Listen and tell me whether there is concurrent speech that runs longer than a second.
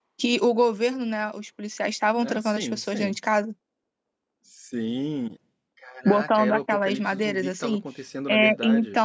Yes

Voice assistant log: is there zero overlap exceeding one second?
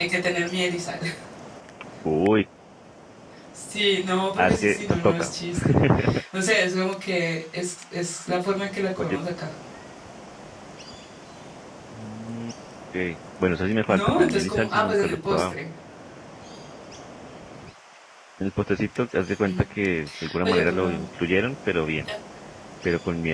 No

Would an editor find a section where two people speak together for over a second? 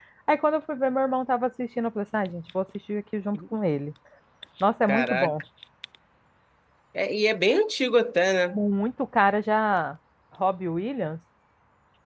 No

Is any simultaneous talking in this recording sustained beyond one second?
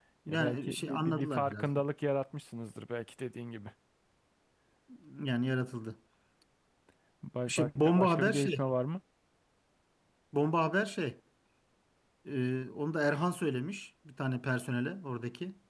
Yes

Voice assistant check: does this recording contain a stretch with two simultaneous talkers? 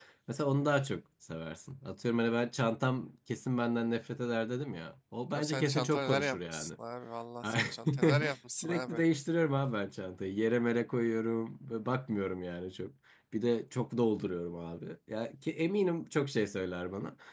Yes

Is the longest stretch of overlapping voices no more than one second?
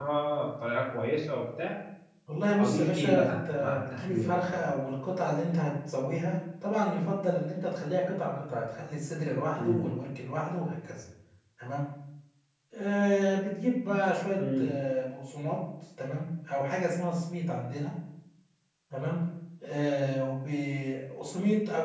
No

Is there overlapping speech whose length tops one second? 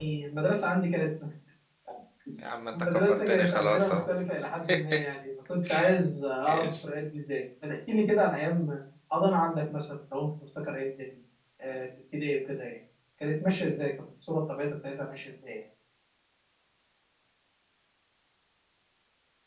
Yes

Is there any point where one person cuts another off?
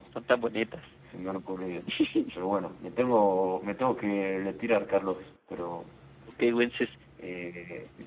No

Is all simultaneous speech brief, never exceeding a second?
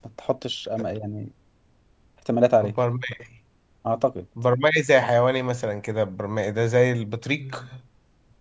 Yes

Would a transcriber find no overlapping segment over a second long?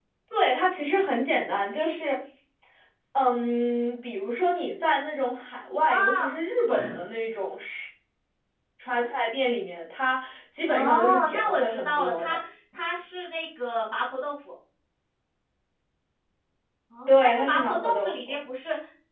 No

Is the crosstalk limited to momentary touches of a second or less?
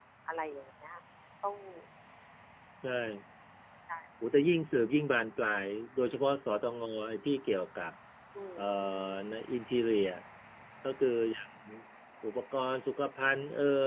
Yes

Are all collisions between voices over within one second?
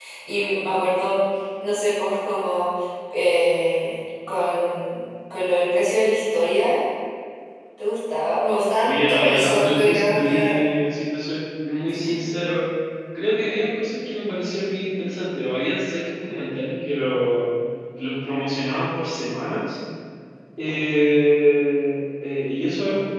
No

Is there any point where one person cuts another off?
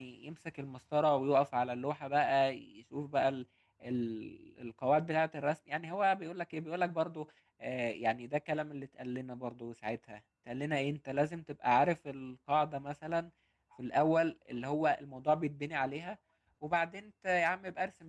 No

